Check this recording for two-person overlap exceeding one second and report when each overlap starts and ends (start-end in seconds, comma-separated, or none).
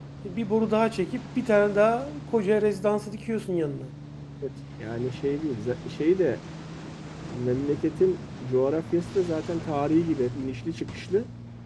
none